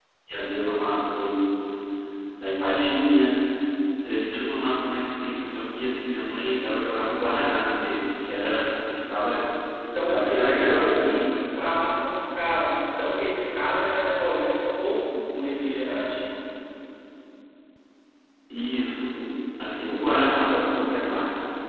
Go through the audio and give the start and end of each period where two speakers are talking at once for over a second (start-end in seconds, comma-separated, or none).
9.9-11.2